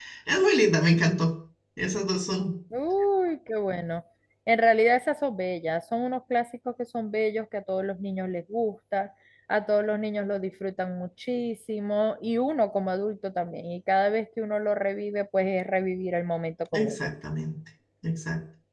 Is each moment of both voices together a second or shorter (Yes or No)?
Yes